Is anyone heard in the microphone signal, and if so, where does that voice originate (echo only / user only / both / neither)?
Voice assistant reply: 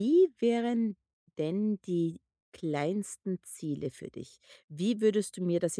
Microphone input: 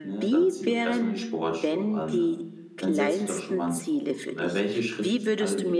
both